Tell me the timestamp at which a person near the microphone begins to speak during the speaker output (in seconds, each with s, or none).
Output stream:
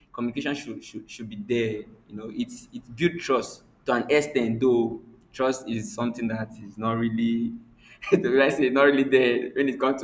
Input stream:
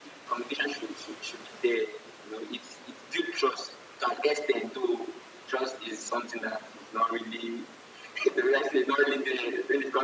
none